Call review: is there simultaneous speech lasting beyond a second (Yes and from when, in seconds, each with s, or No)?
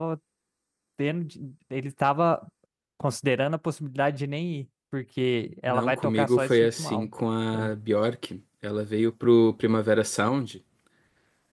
Yes, from 5.7 s